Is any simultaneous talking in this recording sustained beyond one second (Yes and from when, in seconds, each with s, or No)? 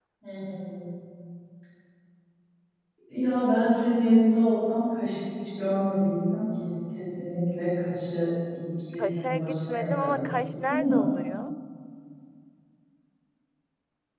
Yes, from 8.9 s